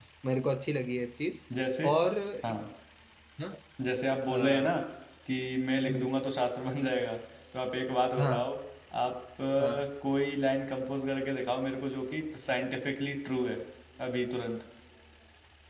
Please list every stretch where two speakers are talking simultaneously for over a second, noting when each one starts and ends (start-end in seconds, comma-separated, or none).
none